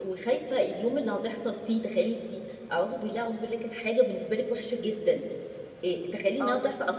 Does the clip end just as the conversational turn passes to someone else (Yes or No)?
No